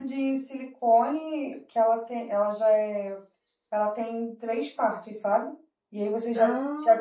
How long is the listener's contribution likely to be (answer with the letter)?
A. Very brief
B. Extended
A